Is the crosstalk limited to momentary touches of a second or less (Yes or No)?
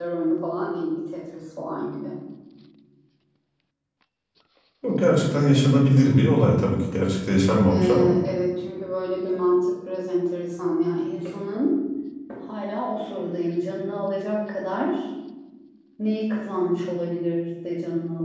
Yes